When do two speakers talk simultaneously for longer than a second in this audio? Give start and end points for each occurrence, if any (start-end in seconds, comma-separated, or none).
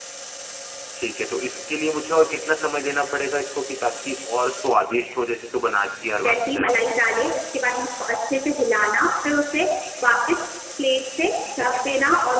none